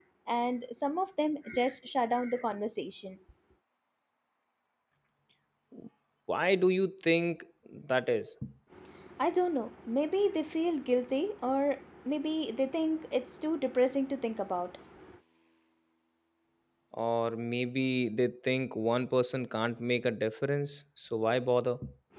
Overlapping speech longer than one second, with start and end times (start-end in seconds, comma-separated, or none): none